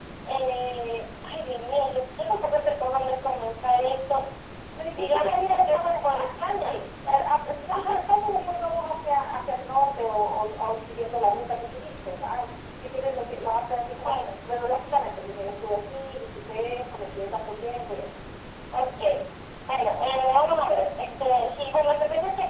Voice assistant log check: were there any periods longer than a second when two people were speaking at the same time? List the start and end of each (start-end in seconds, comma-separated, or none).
5.0-6.8